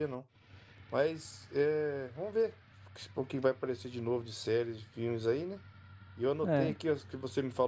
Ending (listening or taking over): listening